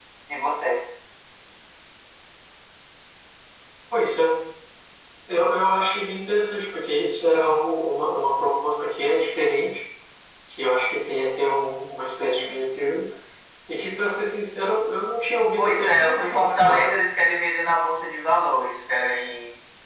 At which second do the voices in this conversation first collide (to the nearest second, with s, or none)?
16 s